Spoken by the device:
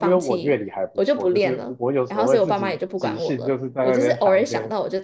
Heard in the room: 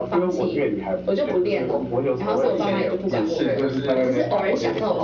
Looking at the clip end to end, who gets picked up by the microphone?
both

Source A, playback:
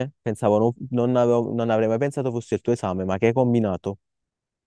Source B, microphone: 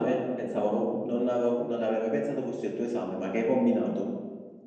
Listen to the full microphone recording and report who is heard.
echo only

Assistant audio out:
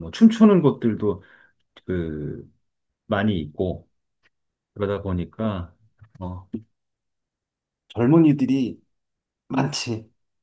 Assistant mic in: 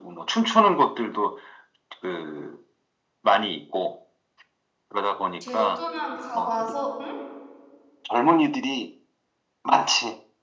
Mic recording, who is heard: both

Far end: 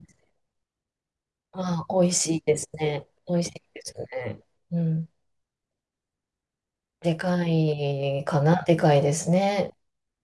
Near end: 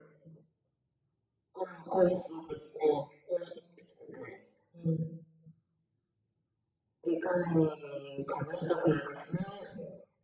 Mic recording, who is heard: echo only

